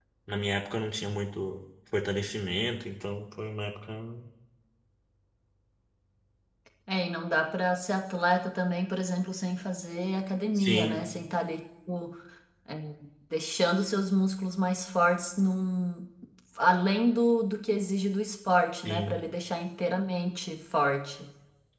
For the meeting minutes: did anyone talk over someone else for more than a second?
No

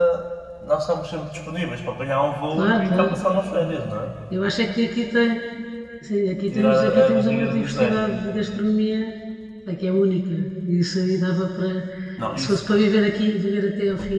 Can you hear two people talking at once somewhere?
Yes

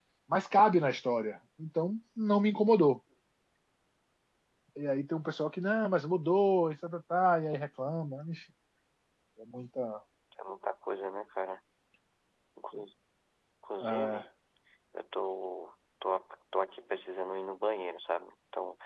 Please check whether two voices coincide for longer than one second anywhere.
No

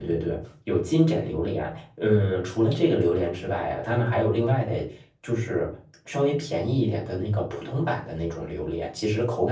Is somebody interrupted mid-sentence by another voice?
No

